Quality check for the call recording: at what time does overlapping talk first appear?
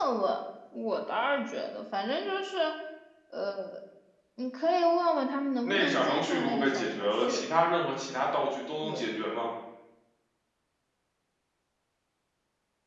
6 s

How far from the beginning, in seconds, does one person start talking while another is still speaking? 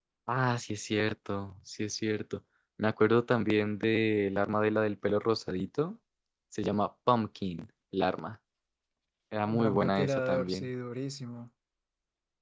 9 s

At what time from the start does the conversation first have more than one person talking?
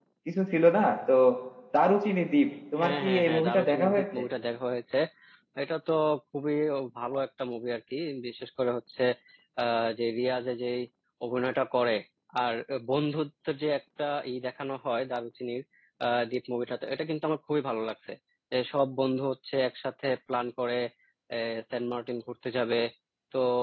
3 s

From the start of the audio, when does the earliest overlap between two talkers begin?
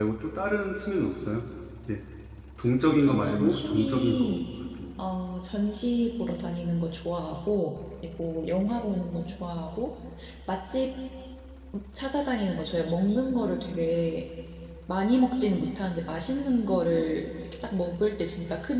3 s

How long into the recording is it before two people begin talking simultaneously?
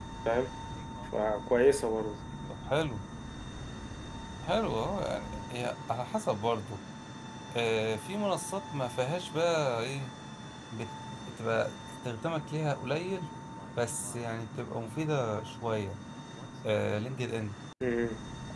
none

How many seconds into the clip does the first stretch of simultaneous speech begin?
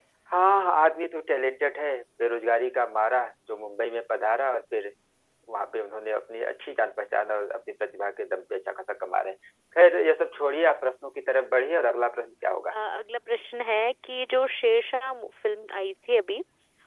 none

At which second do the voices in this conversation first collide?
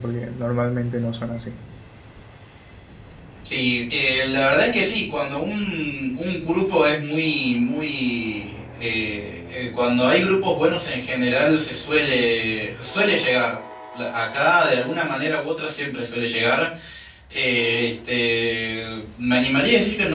none

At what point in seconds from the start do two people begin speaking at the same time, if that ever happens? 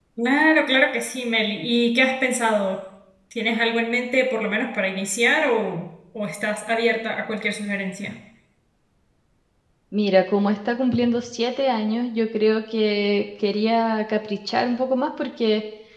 none

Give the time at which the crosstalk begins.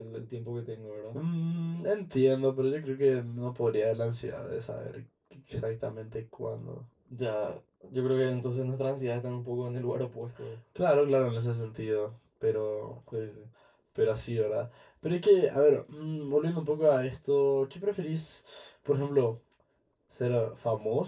none

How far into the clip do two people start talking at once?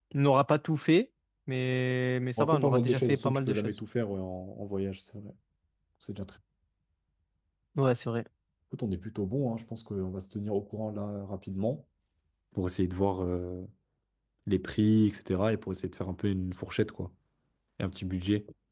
2 s

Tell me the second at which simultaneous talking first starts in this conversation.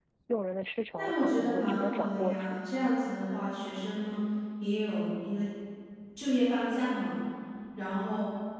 1 s

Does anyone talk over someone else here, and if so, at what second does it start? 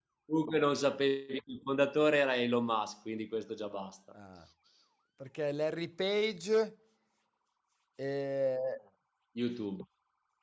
none

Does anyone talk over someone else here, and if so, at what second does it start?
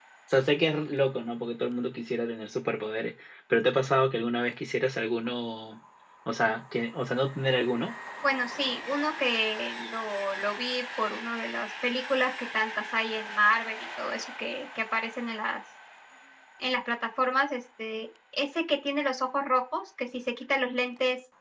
none

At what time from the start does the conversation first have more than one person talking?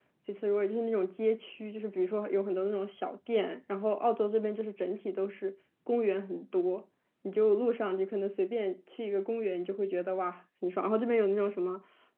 none

